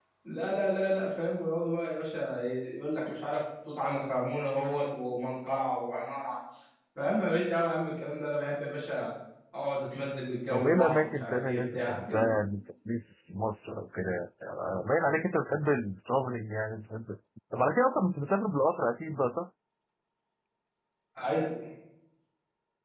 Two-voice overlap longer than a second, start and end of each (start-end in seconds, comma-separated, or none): 10.5-12.3